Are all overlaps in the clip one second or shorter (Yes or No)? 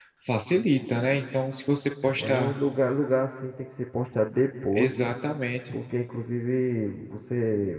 Yes